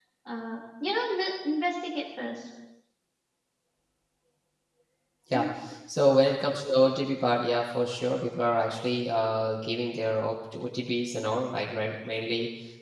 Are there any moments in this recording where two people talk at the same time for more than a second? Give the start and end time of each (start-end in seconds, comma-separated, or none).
none